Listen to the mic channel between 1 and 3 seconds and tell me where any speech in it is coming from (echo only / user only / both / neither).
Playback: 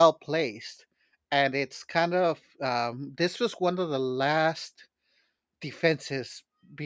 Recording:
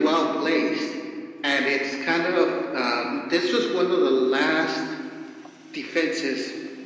echo only